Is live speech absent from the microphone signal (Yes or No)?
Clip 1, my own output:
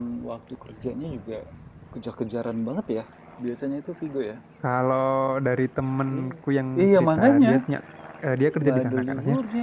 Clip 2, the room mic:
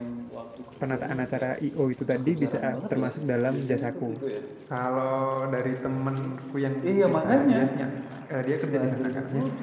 No